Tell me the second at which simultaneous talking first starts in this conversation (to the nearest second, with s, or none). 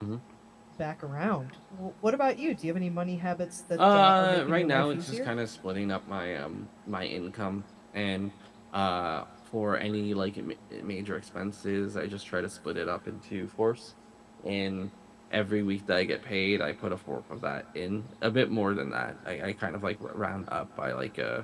4 s